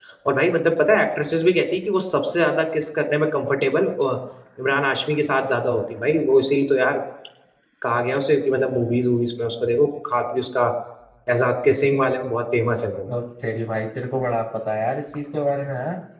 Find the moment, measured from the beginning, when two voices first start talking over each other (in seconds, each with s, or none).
none